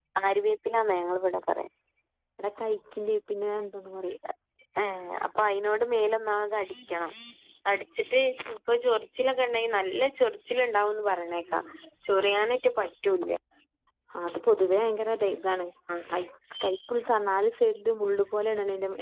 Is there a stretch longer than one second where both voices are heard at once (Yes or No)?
No